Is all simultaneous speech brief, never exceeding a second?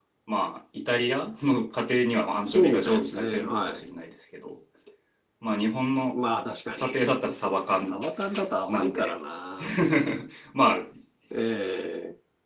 No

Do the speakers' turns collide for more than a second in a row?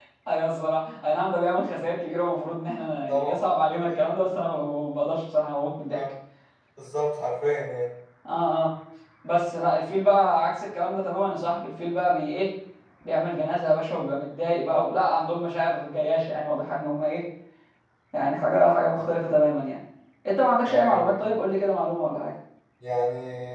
No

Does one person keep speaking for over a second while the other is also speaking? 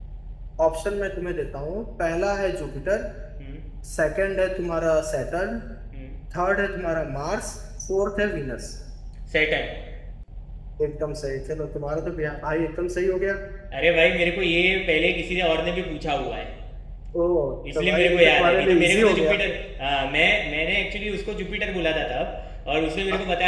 Yes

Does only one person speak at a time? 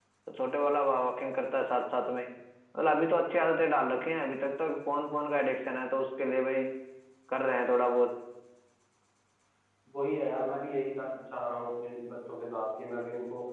Yes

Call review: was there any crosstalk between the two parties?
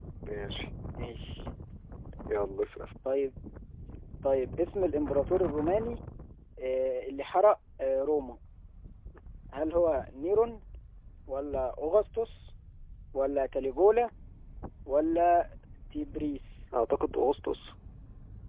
No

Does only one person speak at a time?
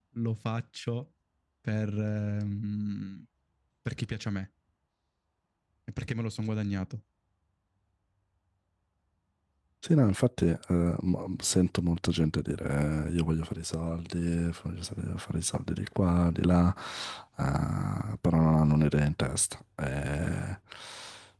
Yes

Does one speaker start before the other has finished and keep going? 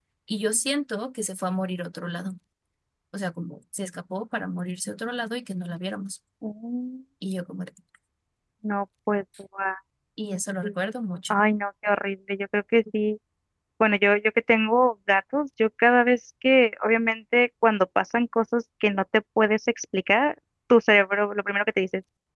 No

